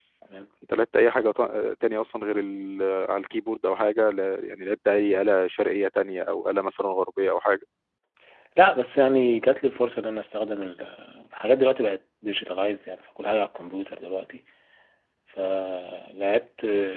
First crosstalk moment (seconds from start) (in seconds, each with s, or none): none